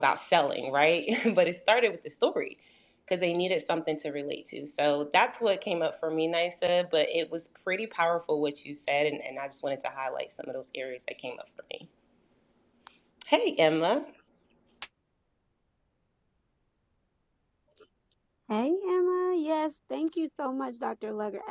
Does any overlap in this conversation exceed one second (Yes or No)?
No